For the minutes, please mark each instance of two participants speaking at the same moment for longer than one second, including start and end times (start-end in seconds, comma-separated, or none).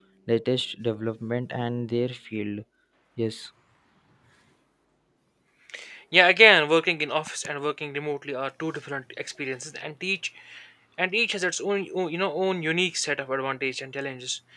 none